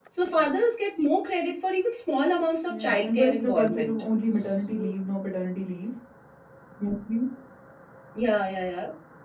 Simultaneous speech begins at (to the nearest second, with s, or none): 3 s